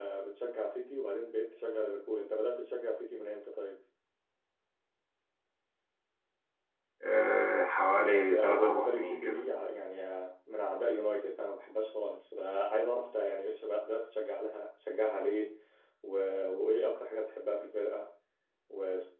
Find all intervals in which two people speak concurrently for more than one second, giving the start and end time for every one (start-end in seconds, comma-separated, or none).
8.0-9.4